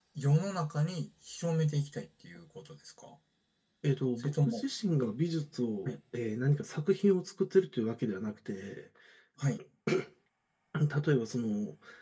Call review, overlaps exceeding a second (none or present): none